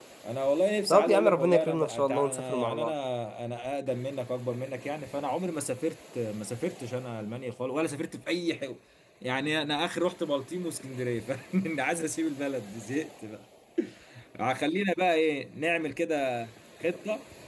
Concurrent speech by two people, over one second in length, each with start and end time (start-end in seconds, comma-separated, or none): 0.9-2.9